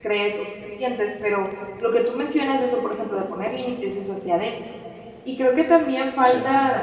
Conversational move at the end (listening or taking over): listening